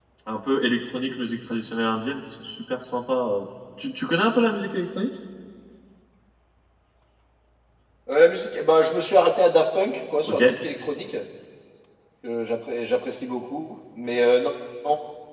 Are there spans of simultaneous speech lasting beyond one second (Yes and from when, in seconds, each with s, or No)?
No